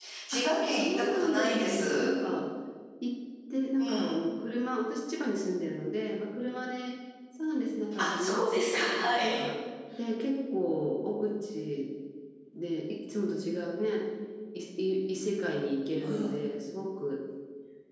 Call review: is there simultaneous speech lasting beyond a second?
Yes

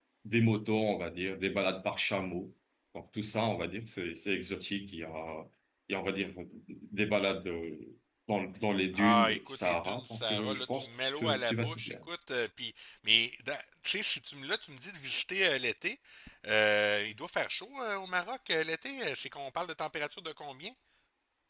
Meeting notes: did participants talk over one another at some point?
Yes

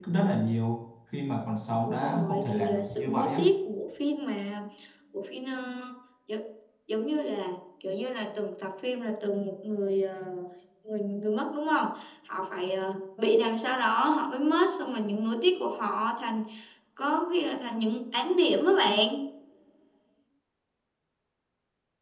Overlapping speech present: Yes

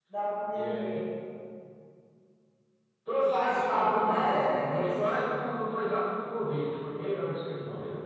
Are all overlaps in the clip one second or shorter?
No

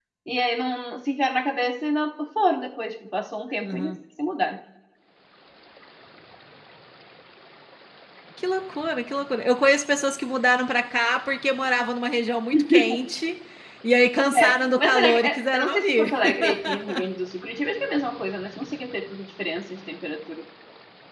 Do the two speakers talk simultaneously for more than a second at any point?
Yes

